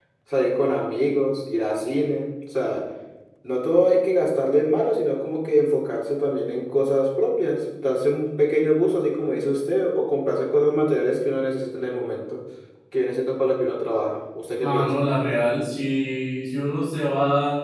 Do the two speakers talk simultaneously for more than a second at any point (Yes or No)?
No